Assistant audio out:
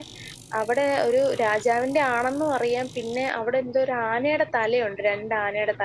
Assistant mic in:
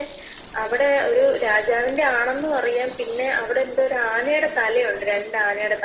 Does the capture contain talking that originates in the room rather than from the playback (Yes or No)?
No